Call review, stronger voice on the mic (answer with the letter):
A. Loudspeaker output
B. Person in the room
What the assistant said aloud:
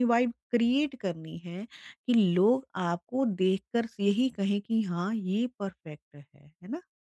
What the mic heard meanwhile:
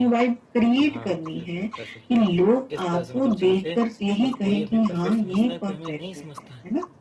A